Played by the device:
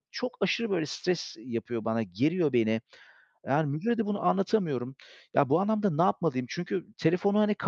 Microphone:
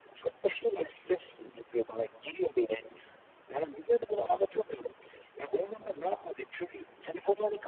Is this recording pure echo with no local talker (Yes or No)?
Yes